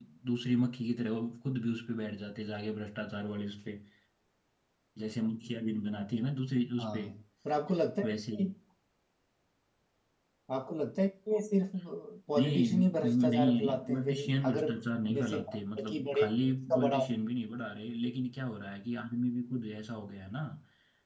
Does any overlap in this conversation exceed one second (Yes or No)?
Yes